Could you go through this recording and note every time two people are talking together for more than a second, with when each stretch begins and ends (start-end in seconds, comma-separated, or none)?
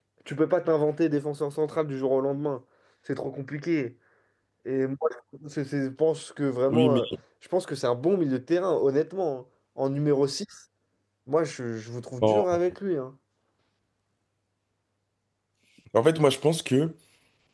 none